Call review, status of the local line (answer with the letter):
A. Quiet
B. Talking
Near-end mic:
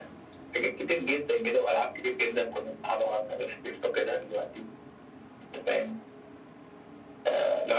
A